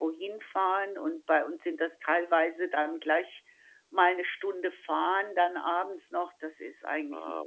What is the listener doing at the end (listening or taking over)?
taking over